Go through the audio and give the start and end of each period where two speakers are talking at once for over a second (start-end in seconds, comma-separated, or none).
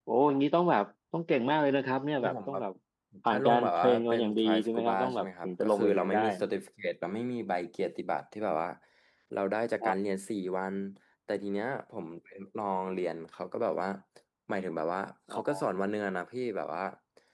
3.3-6.2